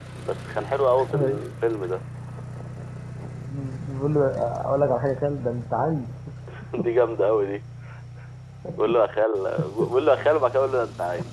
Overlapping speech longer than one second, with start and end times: none

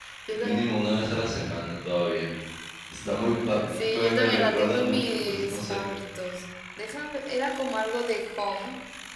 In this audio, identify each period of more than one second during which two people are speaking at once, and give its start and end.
3.7-5.8

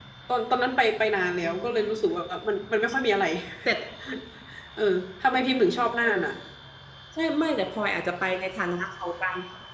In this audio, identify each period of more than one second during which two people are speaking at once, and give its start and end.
none

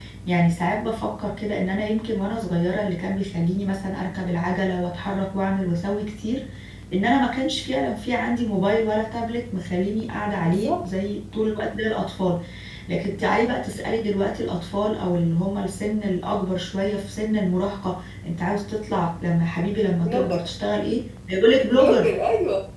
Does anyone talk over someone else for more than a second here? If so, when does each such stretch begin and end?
none

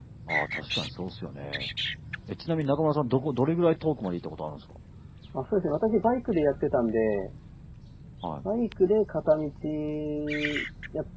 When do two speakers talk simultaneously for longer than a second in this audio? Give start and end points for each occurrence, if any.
none

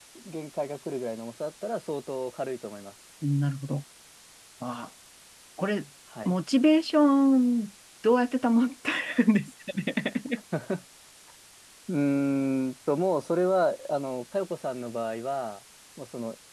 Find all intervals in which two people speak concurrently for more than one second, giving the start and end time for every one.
none

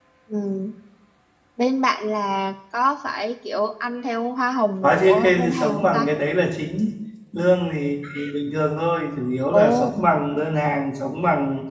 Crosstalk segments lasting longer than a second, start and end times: 4.8-6.1

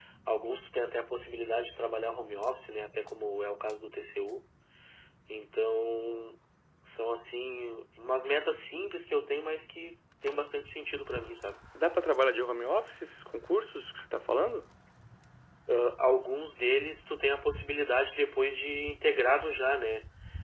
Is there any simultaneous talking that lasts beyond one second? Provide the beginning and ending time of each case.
none

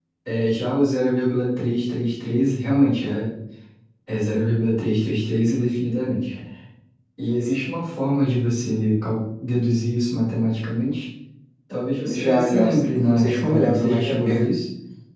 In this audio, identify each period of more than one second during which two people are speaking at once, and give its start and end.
12.1-14.3

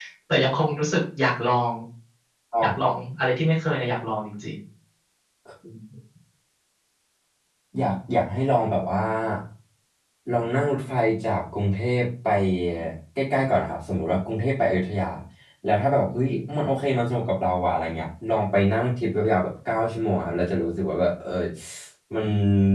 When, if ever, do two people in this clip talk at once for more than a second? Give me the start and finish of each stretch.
none

